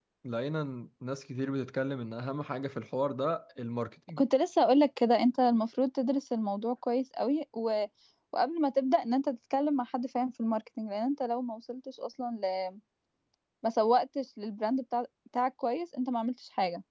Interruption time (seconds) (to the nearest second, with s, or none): none